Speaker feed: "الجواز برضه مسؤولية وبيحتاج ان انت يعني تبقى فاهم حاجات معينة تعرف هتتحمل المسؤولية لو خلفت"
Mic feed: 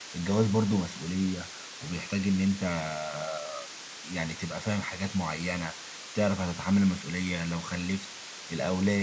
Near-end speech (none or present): none